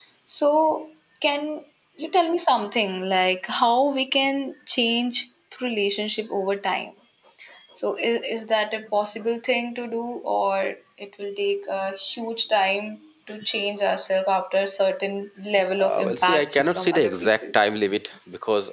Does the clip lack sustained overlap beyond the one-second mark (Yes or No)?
No